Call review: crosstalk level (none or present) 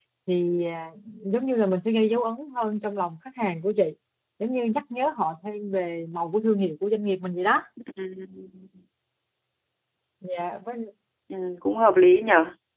none